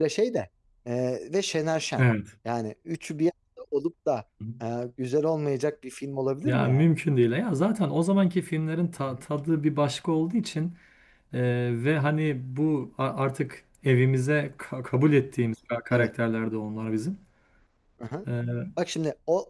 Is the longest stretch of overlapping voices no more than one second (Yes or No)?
Yes